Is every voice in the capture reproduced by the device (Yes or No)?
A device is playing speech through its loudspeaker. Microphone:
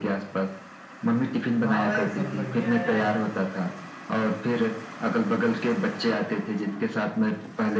No